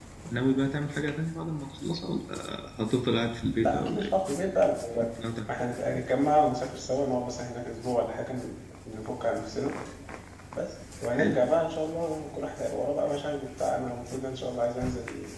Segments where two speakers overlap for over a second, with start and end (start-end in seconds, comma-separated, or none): none